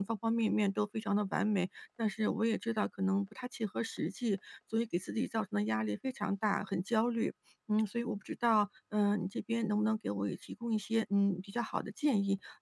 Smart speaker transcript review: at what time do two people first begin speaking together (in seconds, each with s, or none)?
none